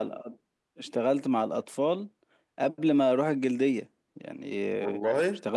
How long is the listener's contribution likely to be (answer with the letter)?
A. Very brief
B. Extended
A